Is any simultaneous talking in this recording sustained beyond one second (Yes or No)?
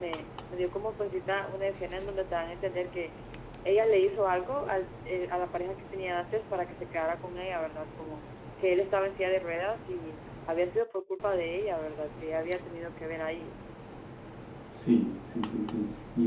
No